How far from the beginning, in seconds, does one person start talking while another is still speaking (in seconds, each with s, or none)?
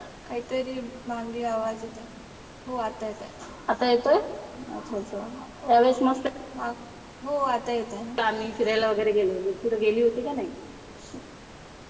none